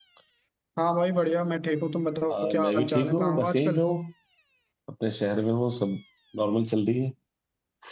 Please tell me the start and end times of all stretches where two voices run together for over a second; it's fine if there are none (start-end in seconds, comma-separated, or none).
2.3-3.8